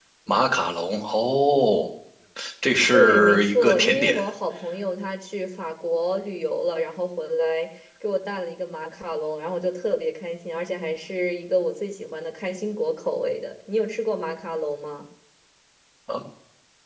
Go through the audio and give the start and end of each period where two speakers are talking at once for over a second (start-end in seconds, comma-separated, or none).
2.9-4.2